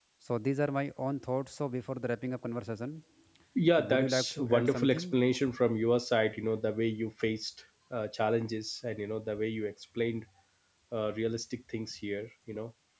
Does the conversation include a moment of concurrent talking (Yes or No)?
Yes